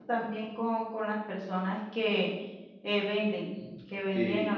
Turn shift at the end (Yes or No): No